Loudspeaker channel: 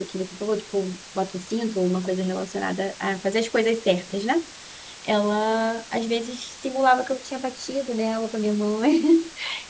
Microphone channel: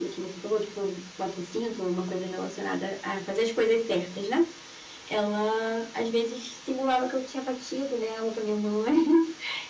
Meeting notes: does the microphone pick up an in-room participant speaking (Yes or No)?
No